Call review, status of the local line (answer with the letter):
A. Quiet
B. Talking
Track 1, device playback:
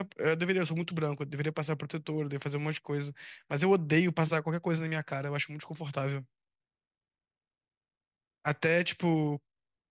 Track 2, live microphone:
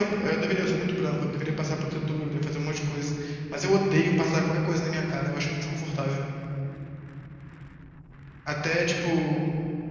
A